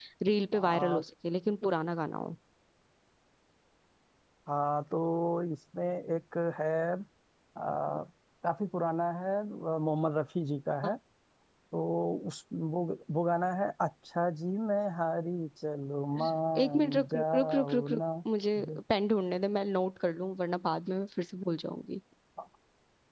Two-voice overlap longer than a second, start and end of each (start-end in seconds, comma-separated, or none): 16.6-18.0